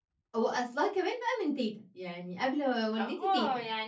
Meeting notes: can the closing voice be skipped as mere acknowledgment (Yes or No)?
No